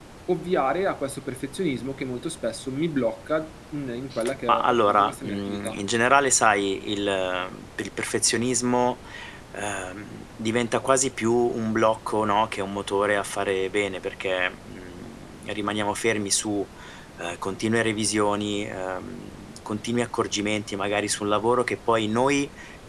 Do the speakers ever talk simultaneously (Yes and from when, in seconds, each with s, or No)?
Yes, from 4.5 s